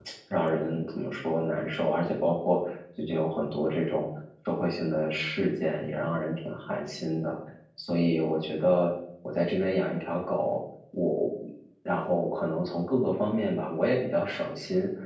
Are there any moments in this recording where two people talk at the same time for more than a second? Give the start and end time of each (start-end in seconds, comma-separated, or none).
none